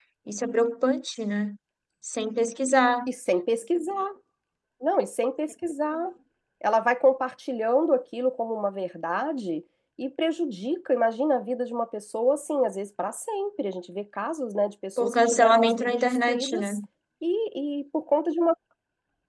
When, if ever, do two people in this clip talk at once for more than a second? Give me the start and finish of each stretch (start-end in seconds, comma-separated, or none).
15.0-16.7